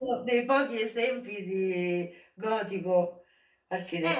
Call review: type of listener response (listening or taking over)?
taking over